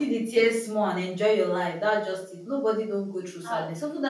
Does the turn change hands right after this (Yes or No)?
No